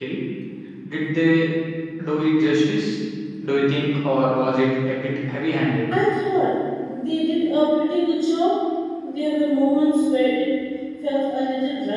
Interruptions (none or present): none